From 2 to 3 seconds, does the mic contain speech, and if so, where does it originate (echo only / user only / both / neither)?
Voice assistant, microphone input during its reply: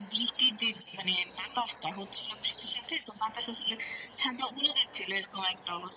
echo only